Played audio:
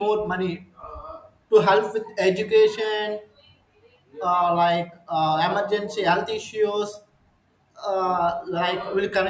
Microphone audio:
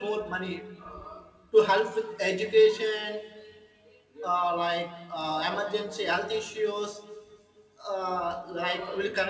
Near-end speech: none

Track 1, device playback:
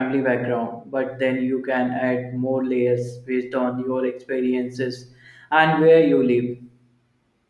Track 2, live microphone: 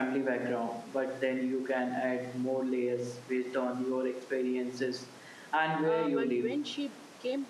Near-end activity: present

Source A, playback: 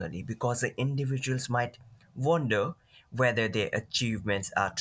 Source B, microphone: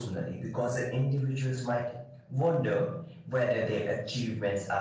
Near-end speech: none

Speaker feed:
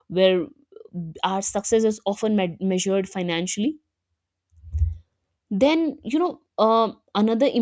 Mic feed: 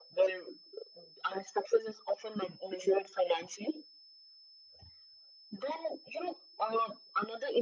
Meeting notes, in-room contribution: none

